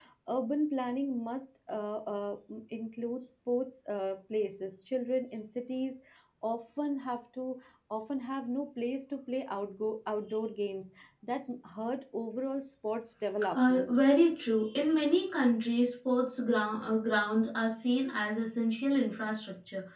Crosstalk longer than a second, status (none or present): none